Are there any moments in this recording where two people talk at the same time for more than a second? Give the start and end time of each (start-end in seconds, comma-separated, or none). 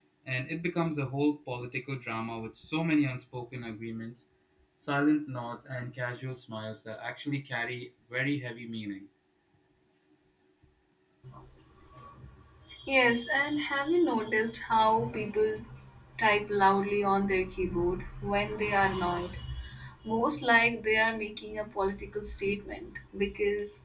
none